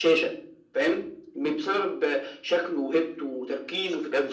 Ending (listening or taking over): taking over